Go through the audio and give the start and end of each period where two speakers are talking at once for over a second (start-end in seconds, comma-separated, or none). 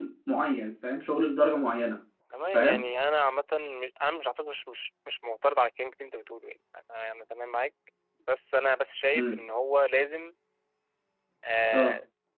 none